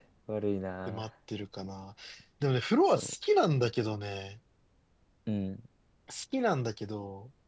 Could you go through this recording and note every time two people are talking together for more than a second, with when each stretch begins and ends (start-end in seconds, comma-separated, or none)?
none